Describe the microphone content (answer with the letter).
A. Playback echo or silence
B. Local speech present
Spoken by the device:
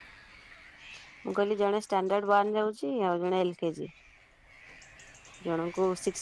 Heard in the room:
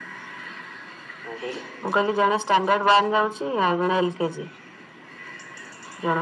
B